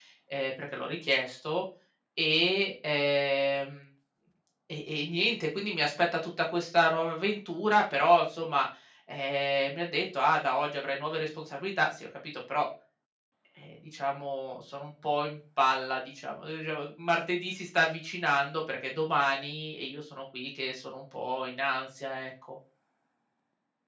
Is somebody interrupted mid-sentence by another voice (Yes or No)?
No